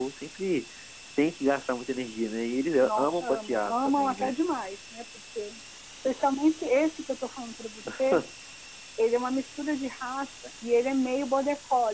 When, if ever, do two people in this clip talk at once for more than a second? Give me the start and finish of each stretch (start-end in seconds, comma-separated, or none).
2.8-4.3